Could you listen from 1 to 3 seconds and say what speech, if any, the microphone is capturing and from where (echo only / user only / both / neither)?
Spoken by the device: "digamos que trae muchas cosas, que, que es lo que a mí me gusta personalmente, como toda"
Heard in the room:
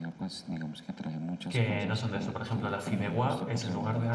both